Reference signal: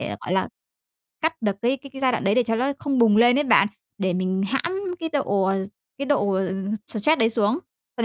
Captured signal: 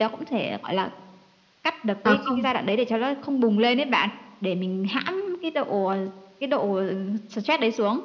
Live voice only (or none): À, không